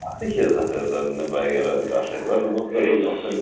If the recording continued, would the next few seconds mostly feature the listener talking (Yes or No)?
No